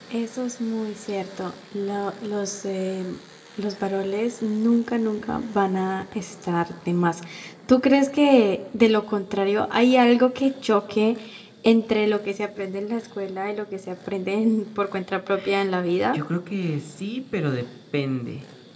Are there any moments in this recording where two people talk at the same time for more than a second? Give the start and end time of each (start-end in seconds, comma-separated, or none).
none